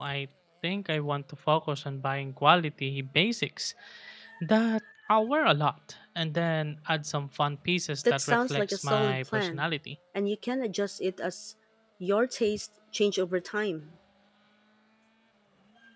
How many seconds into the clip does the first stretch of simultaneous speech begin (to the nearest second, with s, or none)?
8 s